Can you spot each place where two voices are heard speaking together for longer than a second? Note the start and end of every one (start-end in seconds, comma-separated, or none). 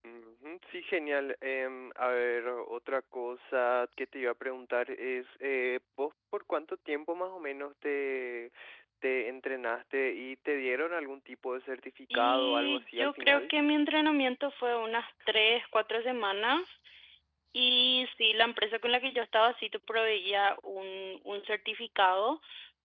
12.1-13.5